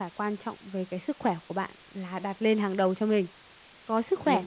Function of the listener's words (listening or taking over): listening